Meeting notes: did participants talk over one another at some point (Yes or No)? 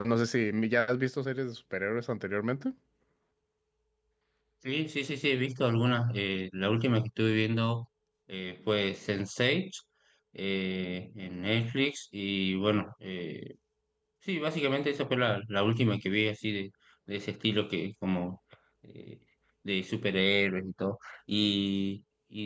No